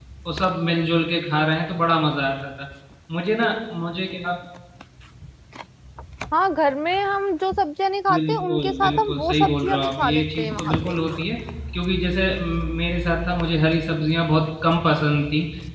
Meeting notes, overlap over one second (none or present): present